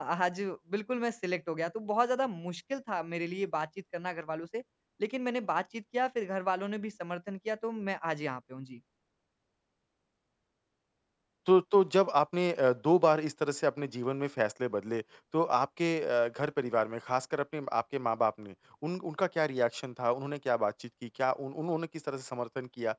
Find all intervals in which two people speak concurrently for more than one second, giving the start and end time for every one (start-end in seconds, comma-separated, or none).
none